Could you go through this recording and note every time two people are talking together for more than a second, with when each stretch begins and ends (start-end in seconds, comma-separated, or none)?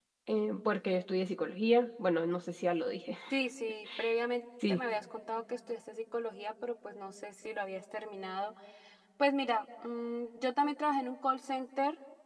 none